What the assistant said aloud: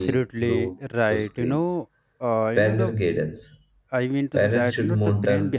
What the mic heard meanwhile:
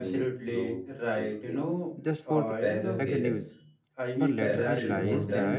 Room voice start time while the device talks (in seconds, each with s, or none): 2.0 s